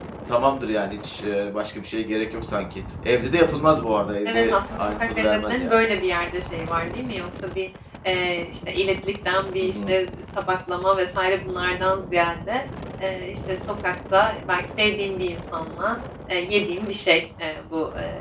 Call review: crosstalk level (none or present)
present